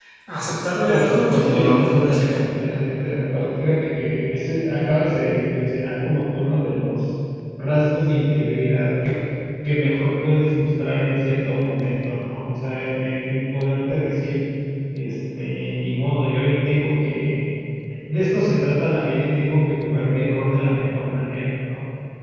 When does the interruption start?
0.9 s

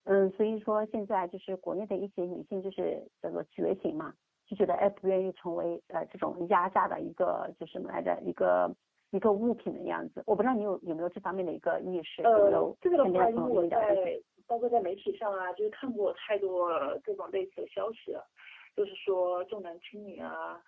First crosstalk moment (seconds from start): 12.2 s

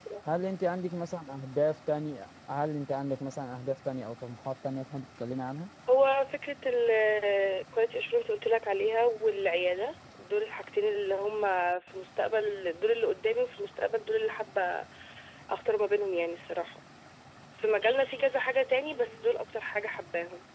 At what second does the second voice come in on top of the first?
none

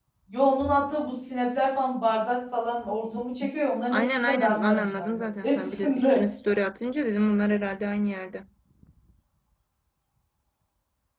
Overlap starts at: 3.9 s

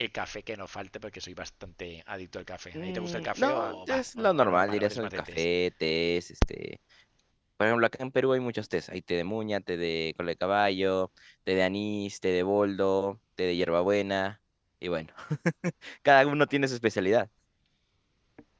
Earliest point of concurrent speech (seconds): 2.7 s

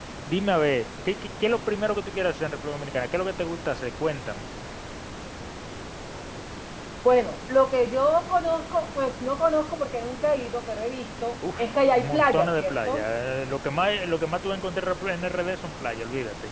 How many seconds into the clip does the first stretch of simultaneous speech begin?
11.4 s

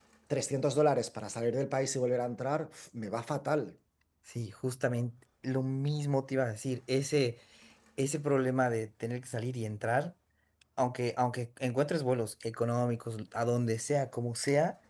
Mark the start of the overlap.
none

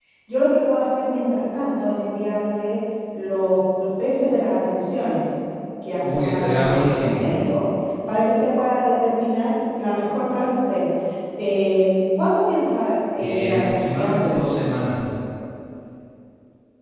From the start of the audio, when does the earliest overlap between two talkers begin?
6.0 s

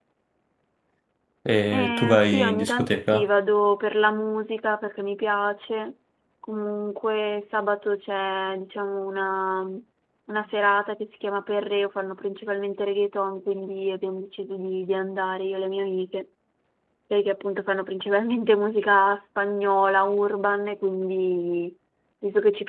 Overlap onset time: 1.7 s

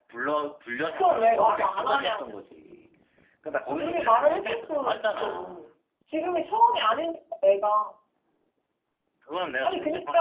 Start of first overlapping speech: 0.8 s

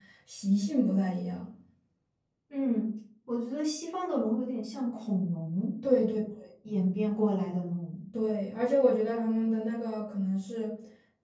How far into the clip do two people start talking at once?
none

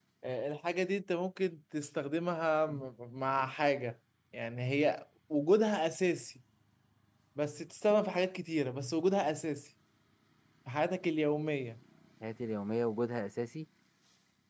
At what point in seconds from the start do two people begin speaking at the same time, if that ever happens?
none

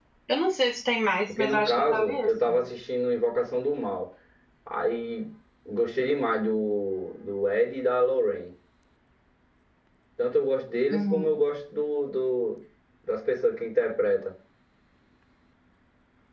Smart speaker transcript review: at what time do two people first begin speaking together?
1.3 s

